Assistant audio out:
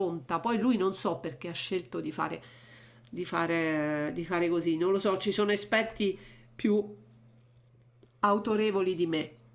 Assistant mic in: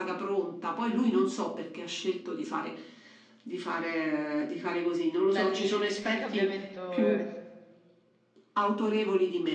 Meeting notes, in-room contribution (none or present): present